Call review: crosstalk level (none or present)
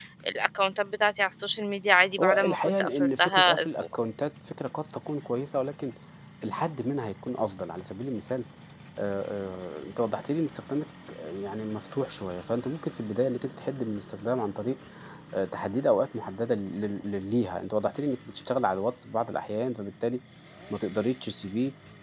present